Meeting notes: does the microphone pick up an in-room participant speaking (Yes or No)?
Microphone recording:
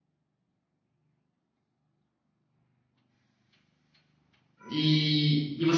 Yes